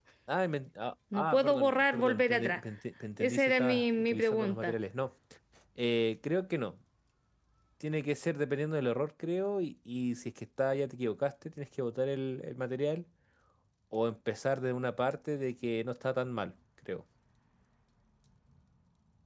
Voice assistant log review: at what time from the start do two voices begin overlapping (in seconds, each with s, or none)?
1.1 s